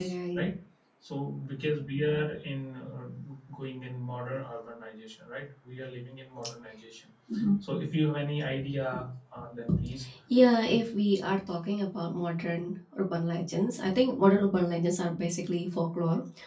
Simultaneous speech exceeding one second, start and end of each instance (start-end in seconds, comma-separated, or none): none